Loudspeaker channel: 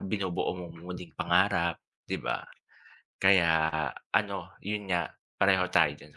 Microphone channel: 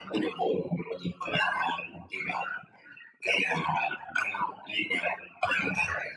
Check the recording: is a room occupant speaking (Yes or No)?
No